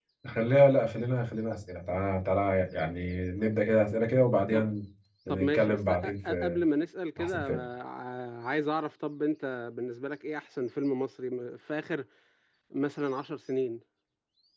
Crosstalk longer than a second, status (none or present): present